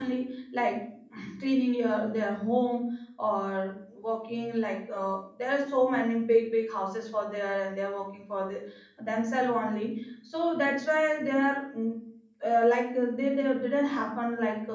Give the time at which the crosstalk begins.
none

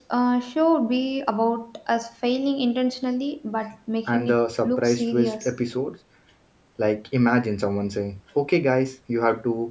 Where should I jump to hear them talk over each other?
4.1 s

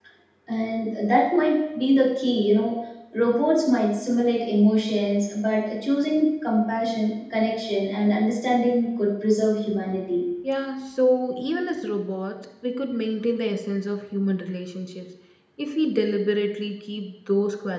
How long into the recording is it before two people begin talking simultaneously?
none

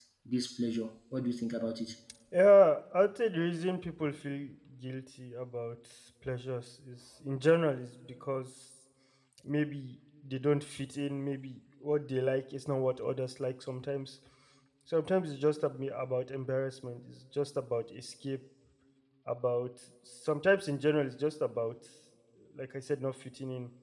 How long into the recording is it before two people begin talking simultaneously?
none

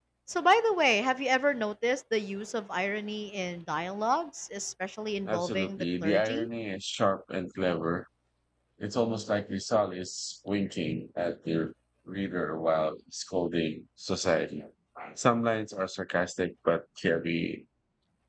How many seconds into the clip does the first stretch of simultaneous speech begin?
5.2 s

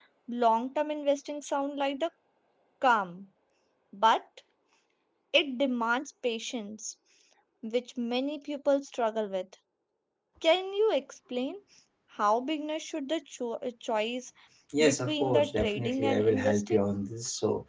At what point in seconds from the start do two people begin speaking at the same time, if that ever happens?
14.8 s

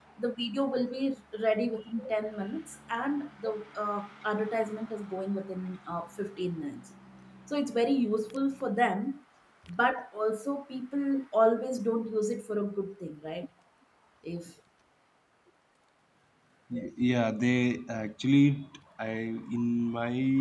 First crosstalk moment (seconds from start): none

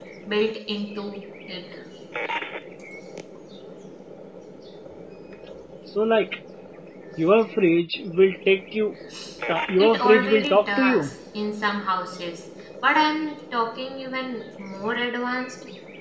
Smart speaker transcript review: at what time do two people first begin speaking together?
9.8 s

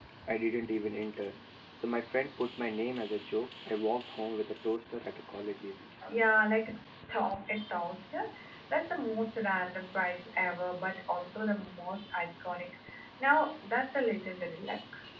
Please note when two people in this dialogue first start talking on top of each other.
none

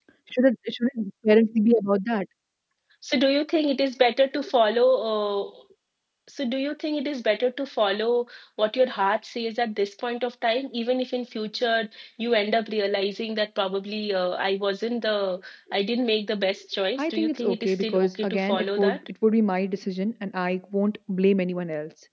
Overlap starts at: 17.0 s

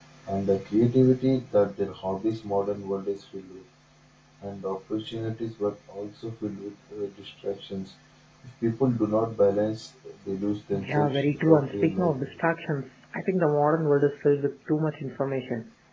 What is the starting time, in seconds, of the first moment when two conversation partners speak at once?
10.7 s

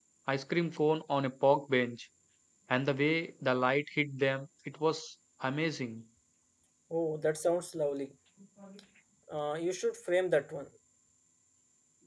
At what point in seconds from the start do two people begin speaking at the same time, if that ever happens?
none

